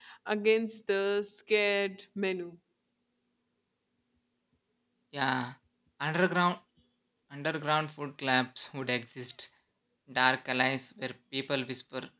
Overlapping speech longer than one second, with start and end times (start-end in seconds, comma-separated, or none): none